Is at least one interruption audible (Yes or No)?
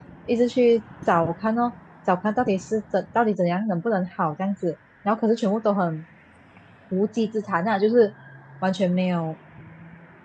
No